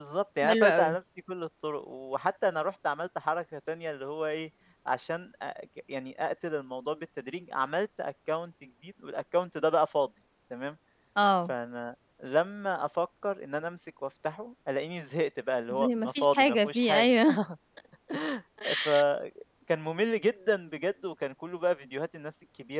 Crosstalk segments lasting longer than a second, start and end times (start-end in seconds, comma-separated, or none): 15.7-17.1